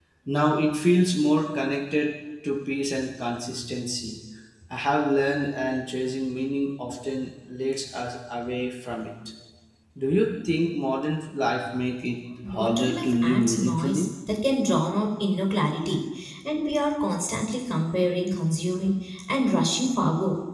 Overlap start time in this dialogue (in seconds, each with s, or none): 12.4 s